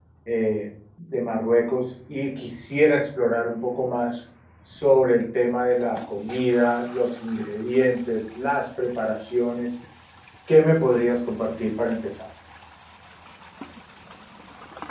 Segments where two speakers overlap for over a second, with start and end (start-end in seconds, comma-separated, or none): none